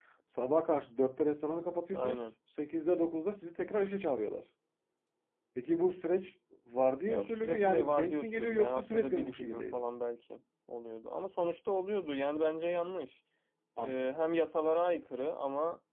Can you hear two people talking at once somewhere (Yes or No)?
Yes